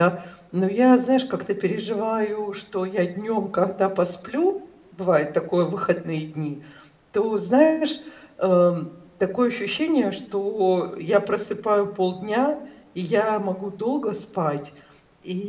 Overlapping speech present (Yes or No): No